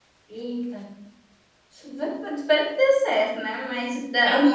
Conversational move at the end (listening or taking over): listening